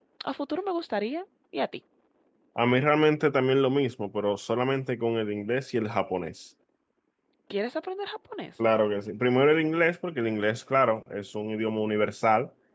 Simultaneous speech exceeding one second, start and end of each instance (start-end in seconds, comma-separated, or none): none